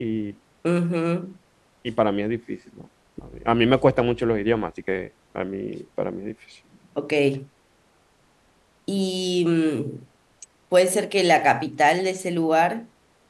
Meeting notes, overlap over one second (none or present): none